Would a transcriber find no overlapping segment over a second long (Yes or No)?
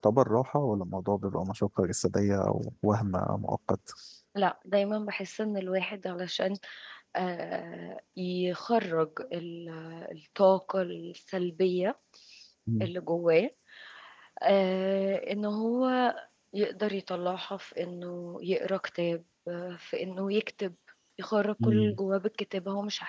Yes